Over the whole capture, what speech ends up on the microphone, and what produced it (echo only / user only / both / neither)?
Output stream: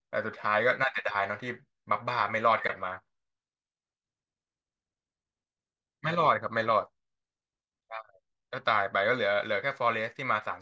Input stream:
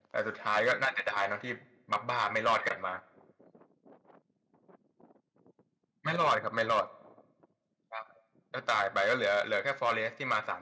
echo only